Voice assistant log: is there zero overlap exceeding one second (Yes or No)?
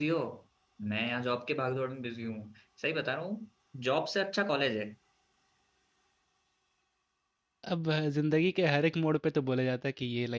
Yes